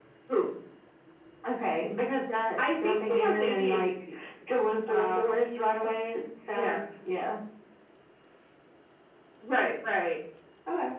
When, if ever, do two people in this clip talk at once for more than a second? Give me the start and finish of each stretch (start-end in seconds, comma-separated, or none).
2.6-3.8